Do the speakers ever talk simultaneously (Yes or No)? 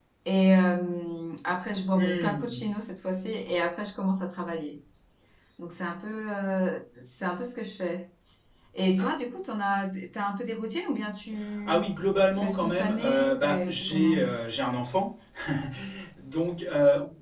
Yes